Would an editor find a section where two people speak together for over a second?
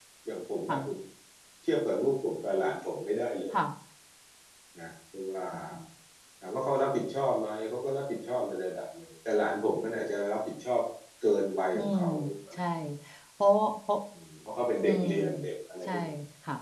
No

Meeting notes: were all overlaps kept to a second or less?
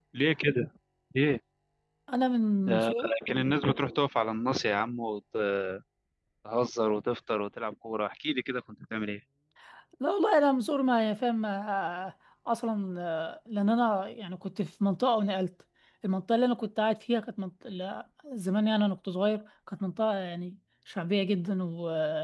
Yes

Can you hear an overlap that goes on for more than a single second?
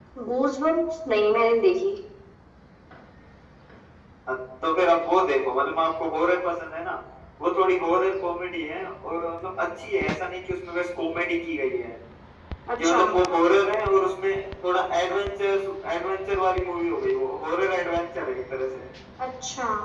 No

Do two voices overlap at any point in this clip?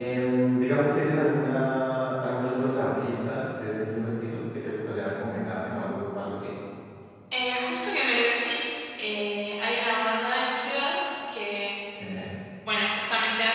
No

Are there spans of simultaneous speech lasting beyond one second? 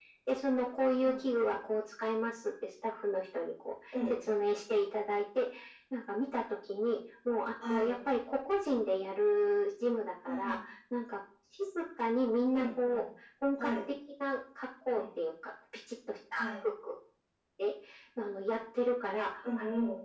No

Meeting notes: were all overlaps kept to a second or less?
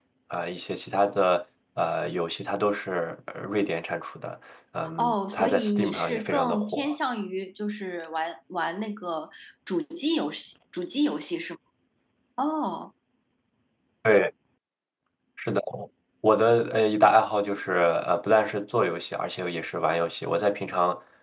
No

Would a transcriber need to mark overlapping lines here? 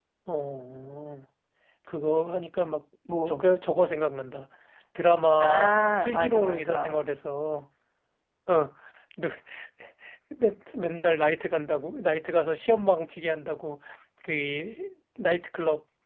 Yes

